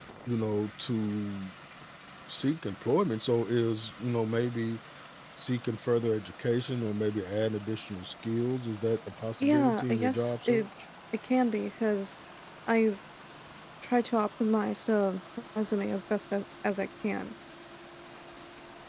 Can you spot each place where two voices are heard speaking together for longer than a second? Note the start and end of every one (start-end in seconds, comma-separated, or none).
9.4-10.7